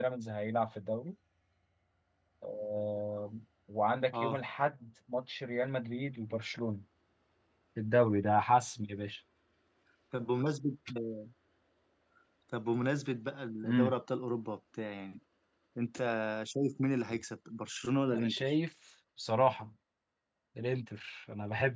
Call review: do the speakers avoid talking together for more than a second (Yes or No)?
Yes